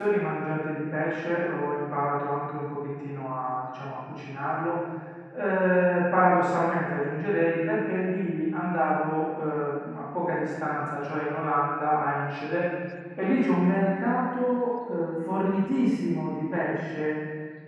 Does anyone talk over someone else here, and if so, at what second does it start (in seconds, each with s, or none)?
none